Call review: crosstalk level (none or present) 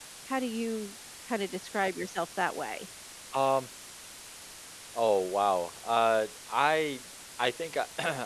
none